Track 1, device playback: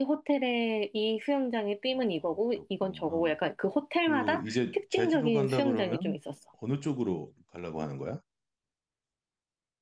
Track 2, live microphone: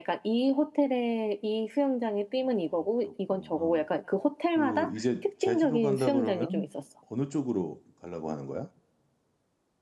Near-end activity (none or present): none